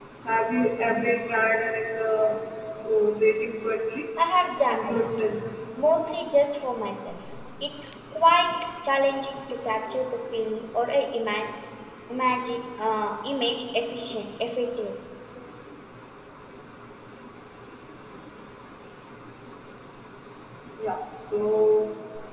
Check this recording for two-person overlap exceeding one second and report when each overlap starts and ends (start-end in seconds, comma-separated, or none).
none